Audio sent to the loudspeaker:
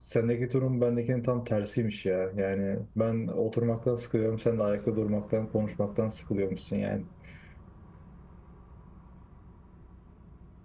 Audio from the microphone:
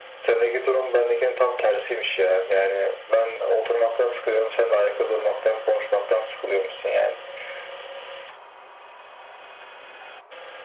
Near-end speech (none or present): none